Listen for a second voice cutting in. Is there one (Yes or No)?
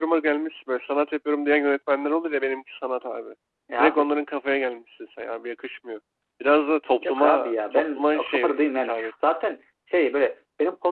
Yes